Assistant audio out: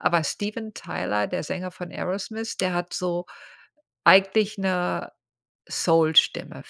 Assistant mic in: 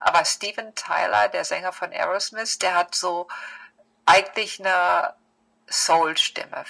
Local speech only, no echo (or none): none